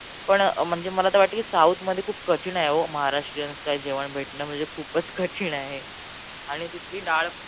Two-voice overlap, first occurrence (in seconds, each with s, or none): none